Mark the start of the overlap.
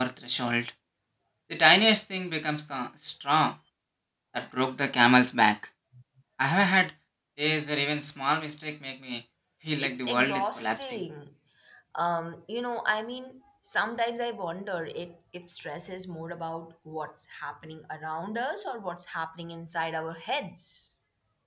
9.8 s

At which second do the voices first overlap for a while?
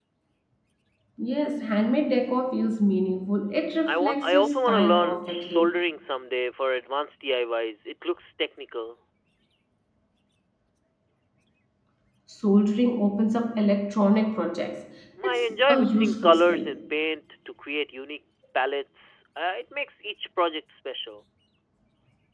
3.9 s

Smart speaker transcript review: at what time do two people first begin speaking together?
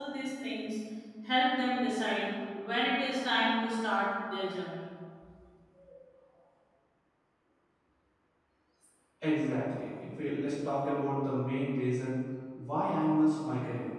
none

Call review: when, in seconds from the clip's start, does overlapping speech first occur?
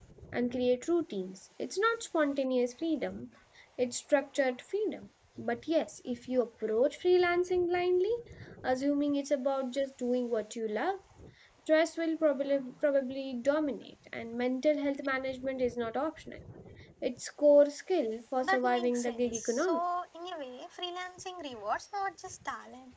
18.4 s

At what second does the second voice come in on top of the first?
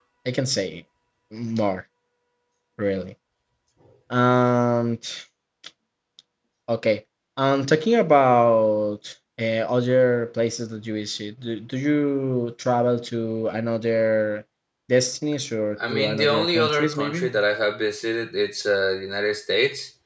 15.8 s

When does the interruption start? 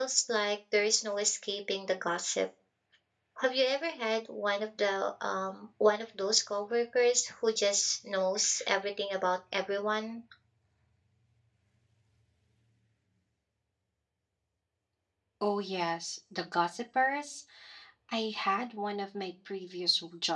none

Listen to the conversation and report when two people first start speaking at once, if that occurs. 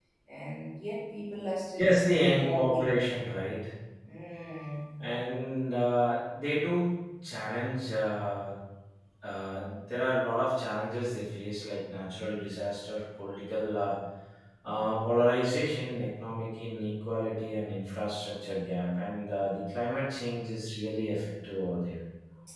1.4 s

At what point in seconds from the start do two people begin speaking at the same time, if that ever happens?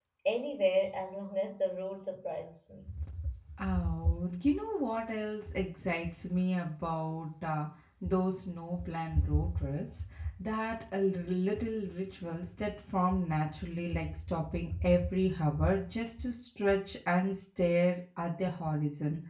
none

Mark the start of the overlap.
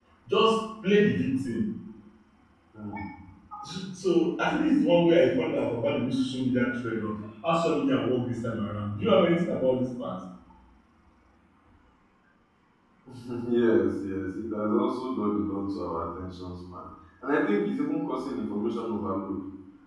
none

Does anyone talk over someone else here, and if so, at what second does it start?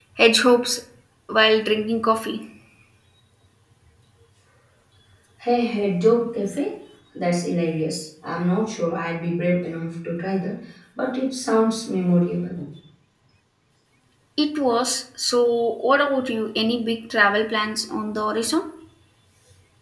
none

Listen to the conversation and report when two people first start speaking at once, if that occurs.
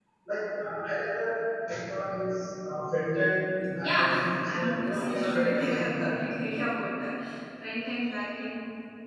3.8 s

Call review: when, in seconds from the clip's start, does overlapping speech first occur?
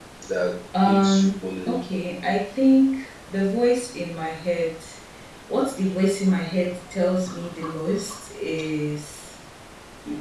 0.8 s

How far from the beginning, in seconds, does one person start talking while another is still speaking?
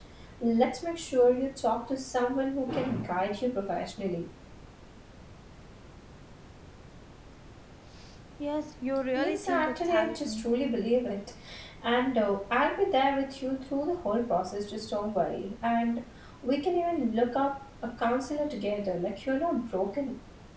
9.2 s

